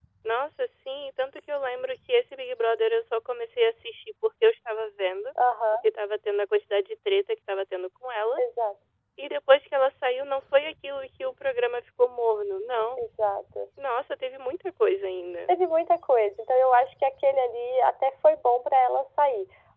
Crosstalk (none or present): none